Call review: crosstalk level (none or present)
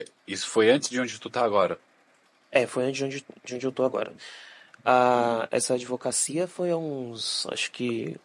none